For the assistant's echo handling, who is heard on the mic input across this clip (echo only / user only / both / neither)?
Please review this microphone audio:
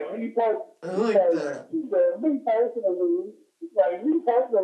both